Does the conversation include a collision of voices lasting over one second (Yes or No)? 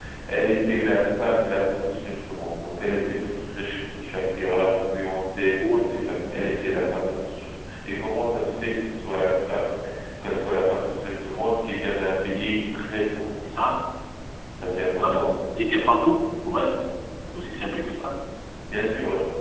No